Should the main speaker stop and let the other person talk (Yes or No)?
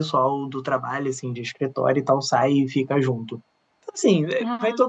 No